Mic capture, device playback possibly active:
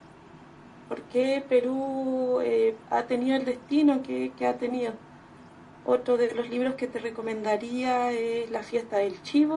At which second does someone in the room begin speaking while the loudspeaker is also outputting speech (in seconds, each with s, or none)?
none